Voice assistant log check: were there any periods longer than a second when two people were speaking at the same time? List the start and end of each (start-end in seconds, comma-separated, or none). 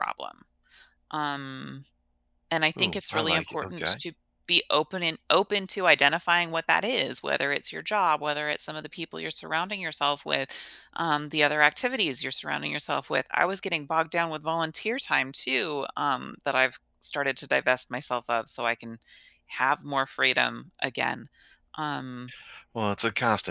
2.8-4.0